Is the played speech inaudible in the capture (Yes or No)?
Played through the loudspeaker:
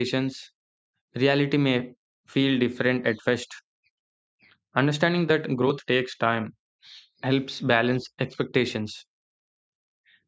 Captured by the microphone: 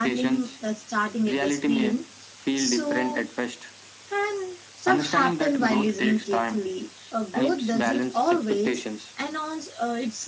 No